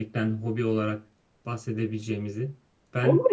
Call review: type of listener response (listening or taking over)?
taking over